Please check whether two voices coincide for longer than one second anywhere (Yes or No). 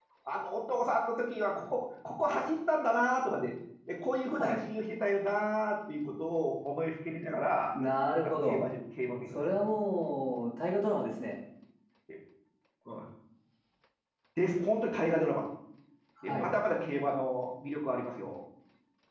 No